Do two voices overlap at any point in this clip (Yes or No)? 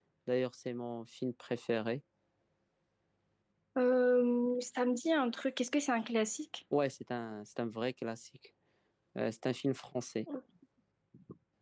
No